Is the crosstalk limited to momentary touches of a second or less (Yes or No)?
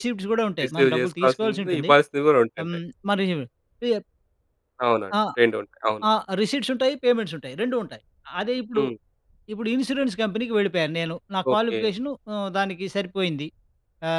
No